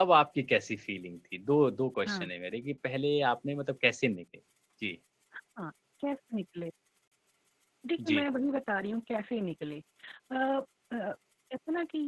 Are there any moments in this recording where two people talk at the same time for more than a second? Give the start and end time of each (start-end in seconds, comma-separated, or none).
none